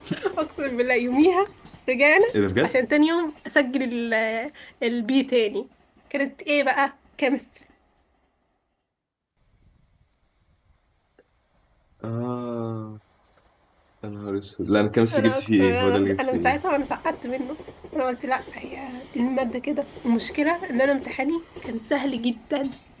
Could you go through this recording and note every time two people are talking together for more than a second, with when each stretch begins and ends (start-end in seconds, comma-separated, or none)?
15.1-16.6